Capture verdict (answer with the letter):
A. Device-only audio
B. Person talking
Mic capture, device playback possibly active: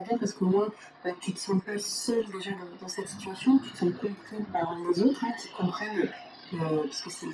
A